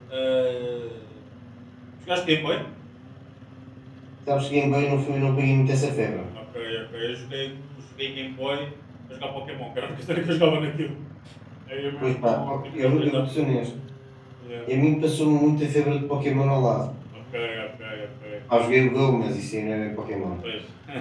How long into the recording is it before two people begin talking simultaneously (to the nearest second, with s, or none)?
12 s